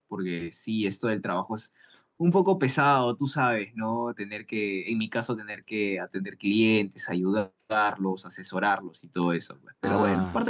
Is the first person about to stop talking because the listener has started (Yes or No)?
Yes